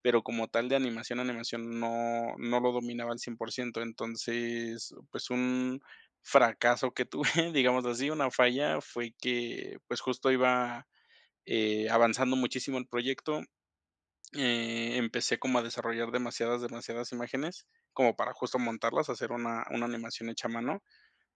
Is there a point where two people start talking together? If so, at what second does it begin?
none

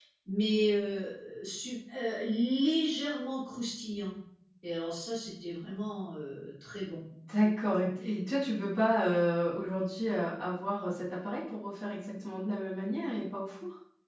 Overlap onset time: none

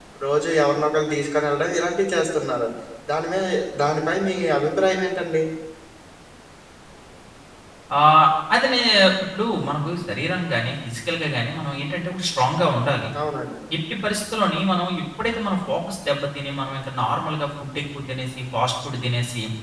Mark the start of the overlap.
none

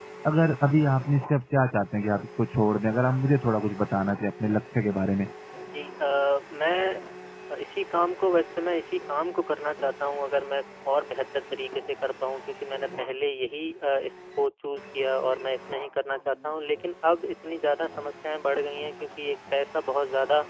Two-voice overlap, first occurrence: none

